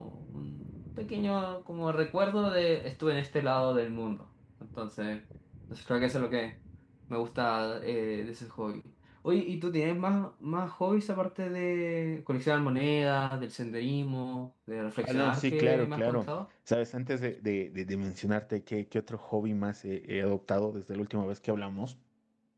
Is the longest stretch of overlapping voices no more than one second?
No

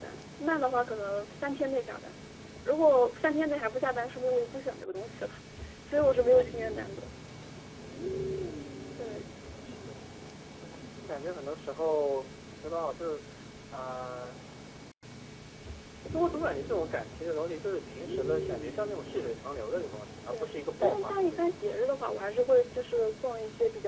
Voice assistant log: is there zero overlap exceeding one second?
No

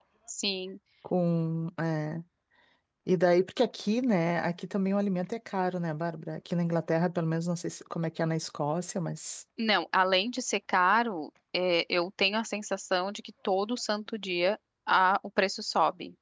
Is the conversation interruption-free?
Yes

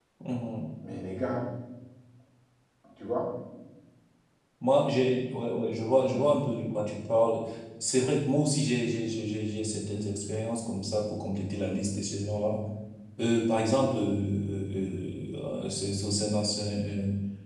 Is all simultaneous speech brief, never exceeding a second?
Yes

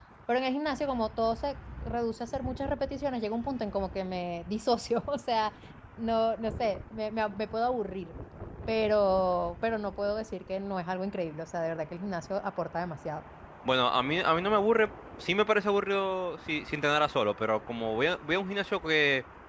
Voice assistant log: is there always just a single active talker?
Yes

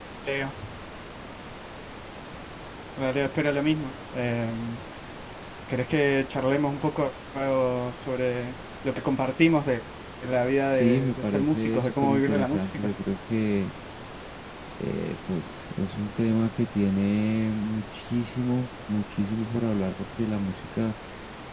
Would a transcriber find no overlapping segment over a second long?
No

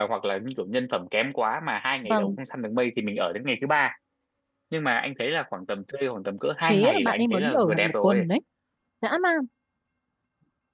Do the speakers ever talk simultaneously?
Yes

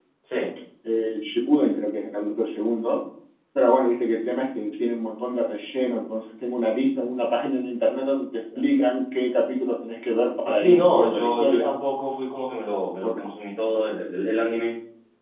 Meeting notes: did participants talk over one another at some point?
Yes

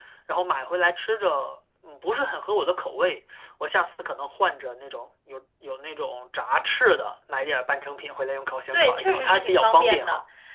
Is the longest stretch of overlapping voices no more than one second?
No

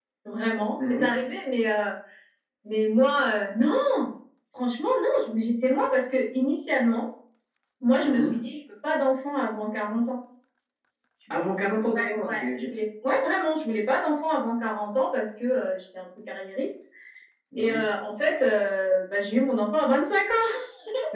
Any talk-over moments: Yes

